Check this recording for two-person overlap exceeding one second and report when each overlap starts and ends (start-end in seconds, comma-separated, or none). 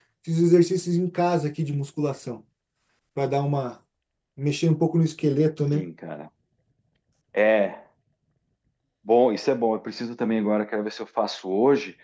none